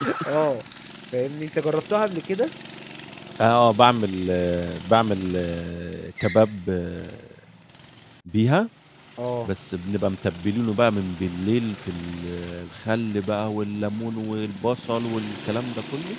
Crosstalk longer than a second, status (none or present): none